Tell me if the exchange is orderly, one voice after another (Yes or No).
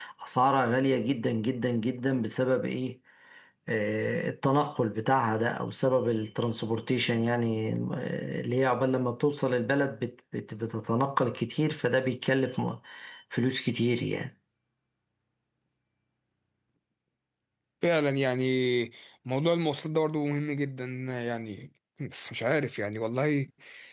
Yes